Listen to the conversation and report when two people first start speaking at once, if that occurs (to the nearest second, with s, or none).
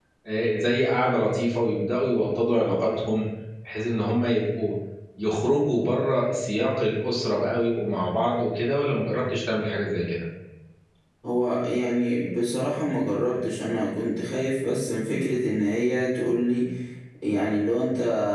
none